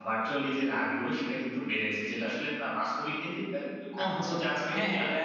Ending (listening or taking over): taking over